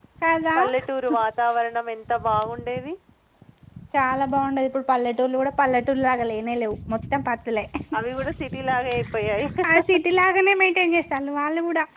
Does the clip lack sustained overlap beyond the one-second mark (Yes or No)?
Yes